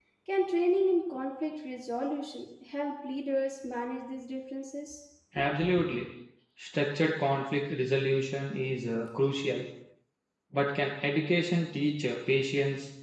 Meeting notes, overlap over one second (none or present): none